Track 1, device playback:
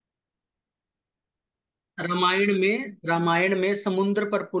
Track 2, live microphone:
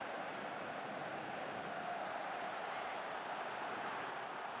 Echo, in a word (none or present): none